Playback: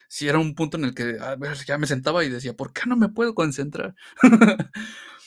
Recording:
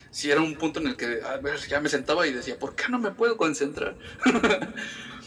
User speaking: No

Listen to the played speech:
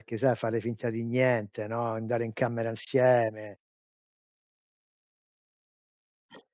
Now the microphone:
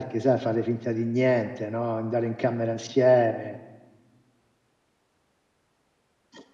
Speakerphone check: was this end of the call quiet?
Yes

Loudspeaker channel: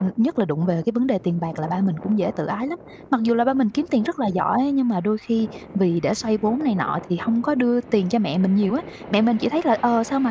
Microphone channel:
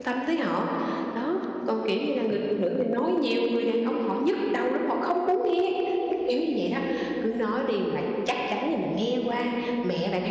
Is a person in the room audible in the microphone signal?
Yes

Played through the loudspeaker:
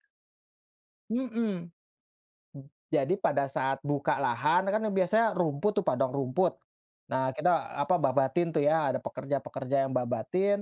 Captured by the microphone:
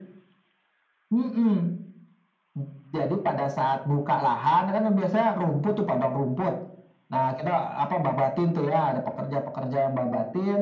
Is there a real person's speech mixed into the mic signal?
No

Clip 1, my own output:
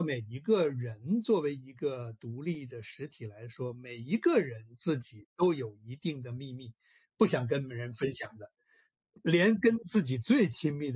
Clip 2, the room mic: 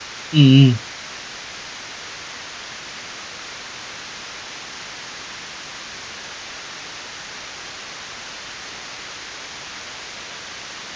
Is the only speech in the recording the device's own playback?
No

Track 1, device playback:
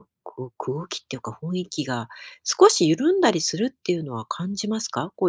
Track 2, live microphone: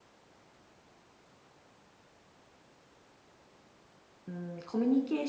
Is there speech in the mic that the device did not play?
Yes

